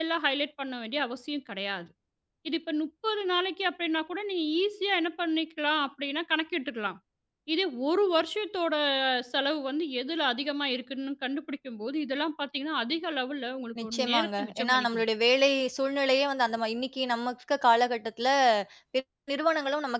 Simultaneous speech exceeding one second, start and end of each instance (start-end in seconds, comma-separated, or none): 13.8-15.0